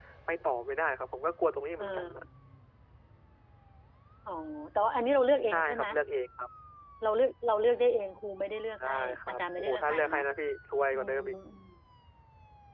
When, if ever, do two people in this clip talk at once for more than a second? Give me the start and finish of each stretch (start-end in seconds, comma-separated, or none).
8.8-10.2